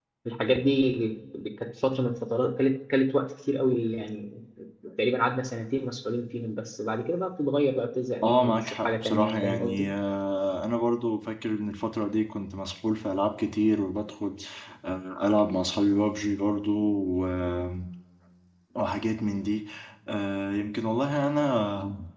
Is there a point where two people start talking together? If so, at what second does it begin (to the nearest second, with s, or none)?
8 s